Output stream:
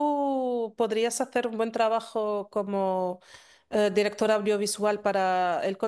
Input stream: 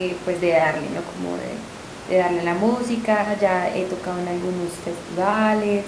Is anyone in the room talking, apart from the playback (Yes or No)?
Yes